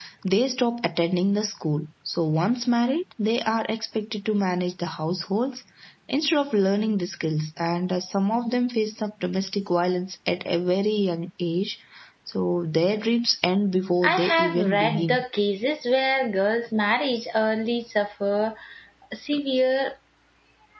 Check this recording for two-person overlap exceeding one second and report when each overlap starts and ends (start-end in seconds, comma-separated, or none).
14.0-15.2